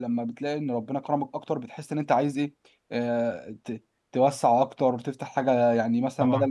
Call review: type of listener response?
listening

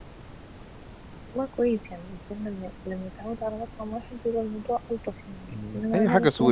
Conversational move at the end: taking over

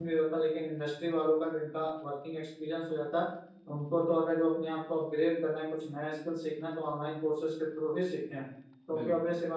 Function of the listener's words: listening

